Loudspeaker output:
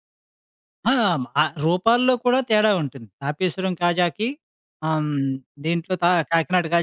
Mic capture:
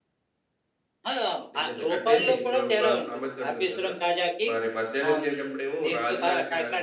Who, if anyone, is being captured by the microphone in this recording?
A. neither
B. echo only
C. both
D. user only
C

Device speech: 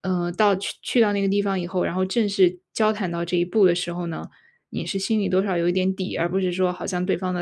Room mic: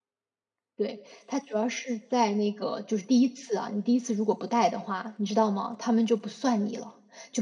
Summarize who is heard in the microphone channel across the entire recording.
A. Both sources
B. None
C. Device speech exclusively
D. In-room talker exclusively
D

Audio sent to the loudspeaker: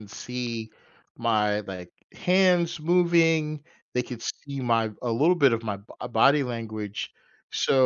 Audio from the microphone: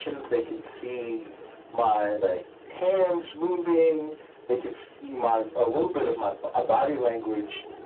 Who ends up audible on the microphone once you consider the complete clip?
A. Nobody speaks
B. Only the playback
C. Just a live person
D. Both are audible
B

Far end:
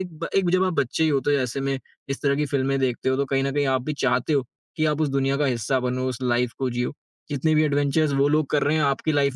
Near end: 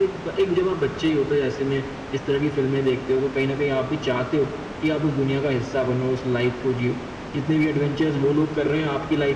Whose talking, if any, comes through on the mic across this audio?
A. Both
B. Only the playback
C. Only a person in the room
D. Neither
B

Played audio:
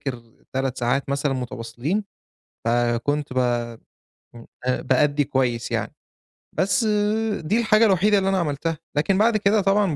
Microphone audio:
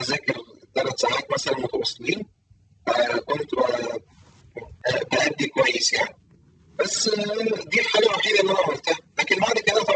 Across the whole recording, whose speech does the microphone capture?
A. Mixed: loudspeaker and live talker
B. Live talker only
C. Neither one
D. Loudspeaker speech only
D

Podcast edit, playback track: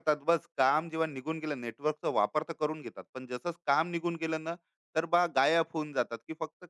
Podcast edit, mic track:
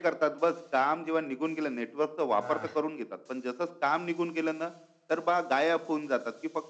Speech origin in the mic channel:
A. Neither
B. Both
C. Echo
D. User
B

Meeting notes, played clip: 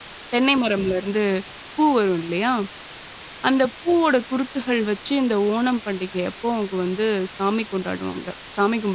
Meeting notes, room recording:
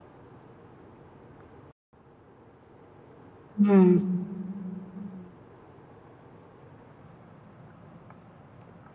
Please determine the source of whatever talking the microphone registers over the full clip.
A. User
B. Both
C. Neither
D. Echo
A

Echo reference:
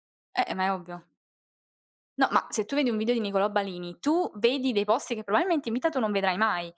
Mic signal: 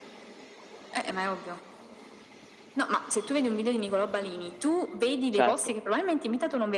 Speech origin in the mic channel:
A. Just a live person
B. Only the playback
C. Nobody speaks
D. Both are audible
D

